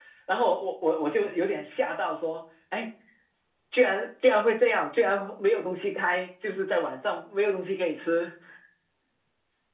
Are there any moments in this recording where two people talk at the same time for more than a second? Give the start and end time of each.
none

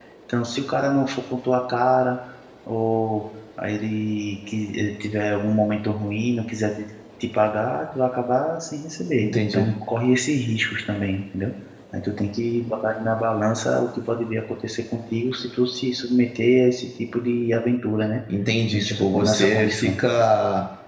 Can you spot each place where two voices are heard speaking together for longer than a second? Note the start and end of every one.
18.7-20.0

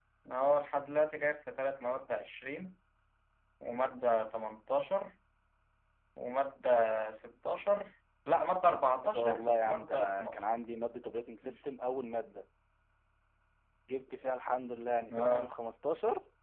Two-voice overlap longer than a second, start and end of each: 9.1-10.4

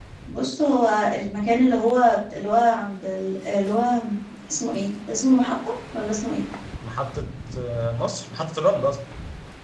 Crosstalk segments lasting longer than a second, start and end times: none

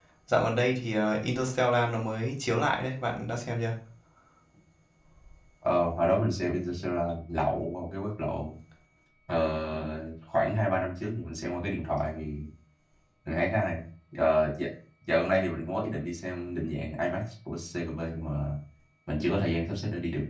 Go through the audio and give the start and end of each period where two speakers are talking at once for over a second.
none

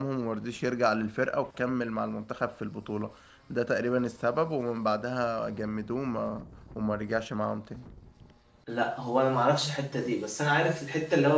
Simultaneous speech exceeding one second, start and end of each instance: none

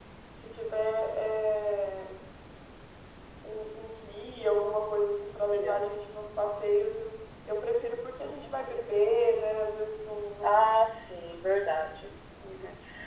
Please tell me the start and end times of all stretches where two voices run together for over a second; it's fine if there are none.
none

